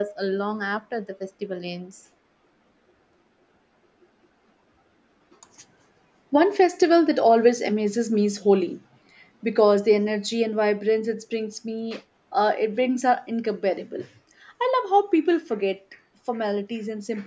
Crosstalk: none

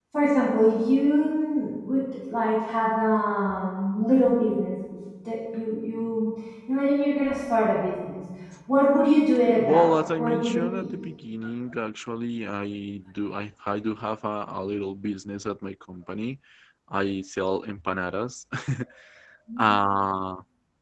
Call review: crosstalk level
present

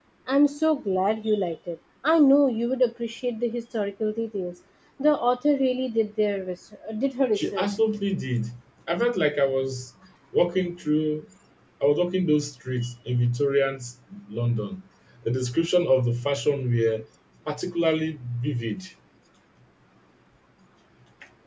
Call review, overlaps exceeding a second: none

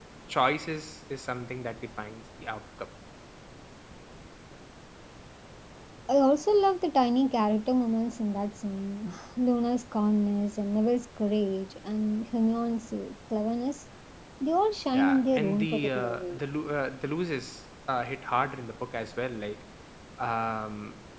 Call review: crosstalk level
present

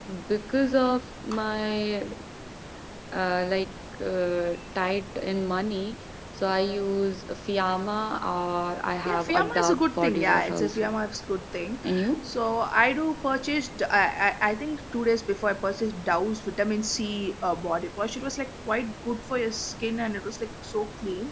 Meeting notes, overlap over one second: present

